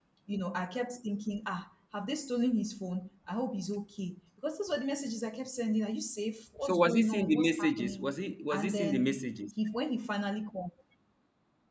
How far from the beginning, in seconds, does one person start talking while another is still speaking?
7 s

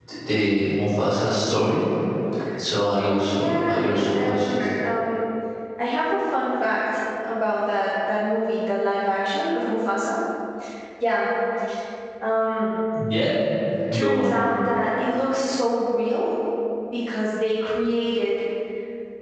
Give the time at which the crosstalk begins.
3 s

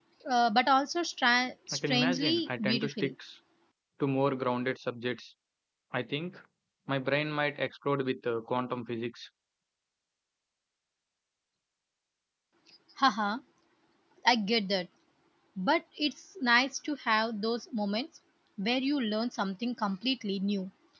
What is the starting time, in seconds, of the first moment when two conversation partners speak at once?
2 s

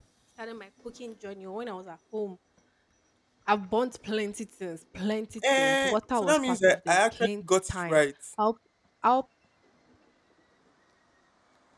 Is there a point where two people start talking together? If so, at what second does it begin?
5 s

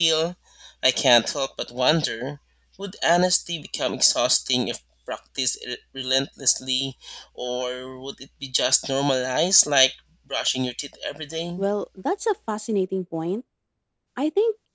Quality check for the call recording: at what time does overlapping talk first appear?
none

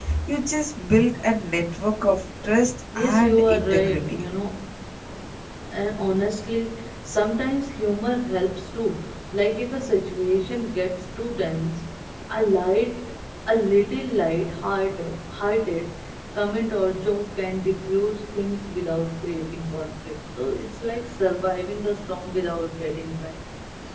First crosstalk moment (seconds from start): 3 s

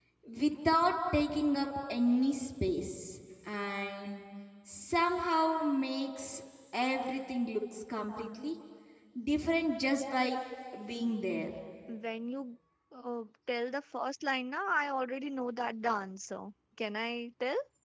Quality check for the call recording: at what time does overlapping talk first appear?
none

